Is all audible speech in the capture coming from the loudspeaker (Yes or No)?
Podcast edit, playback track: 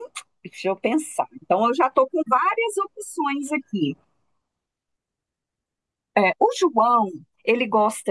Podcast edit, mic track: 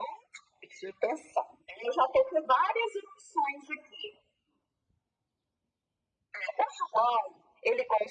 Yes